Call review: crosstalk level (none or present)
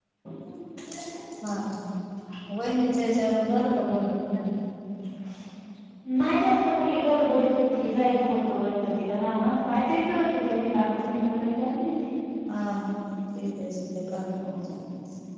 none